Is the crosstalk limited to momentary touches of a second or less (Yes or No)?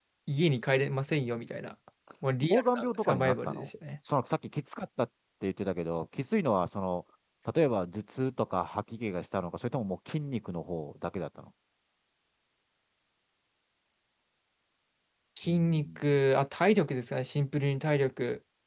No